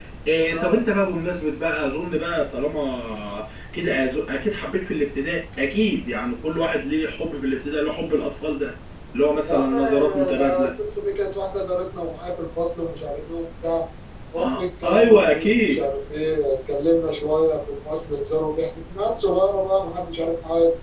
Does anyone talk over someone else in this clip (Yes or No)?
Yes